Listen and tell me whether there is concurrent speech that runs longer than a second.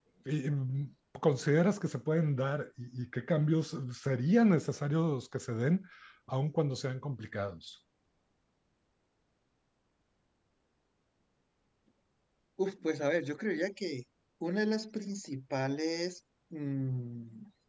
No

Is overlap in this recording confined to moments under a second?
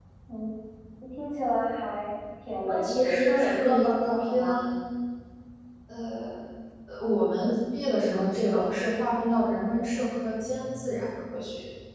No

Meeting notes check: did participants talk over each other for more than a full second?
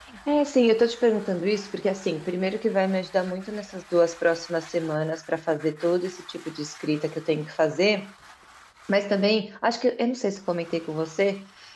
No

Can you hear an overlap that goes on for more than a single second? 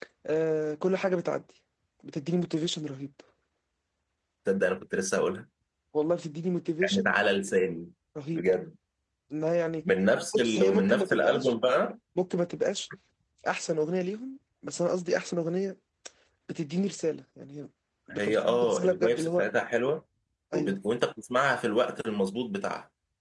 Yes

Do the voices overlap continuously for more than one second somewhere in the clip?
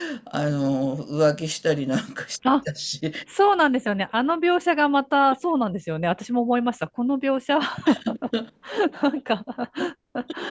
No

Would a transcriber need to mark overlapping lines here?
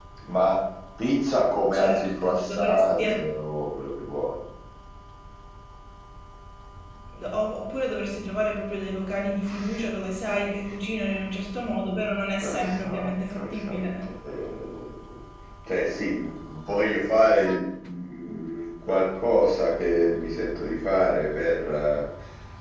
Yes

